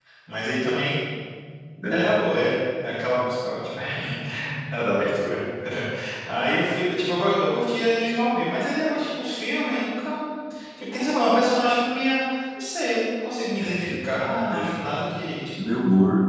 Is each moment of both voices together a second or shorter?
Yes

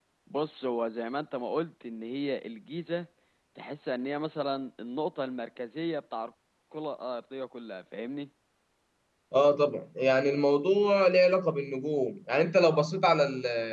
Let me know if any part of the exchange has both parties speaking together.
No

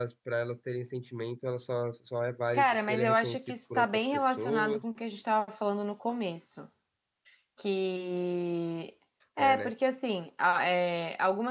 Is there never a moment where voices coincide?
No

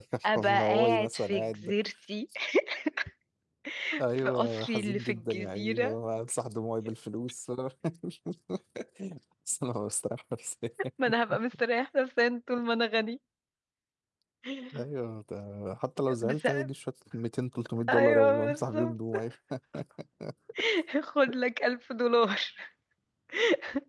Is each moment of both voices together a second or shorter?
No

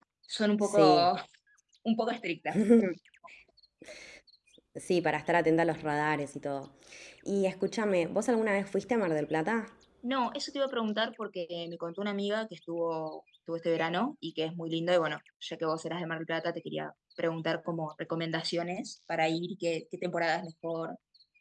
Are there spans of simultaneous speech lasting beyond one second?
No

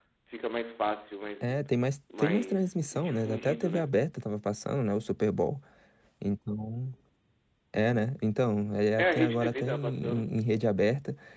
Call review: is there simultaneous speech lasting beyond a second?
Yes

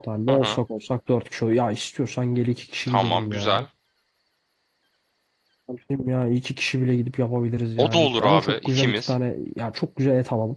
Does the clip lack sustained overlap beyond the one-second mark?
No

